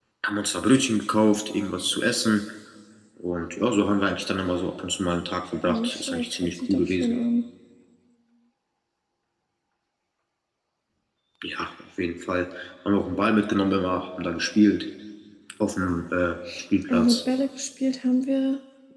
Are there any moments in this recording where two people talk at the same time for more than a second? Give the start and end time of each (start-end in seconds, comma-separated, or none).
5.6-7.1